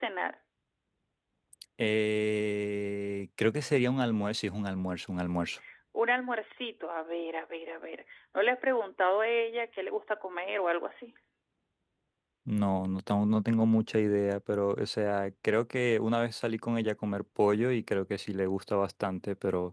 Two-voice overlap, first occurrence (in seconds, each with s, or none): none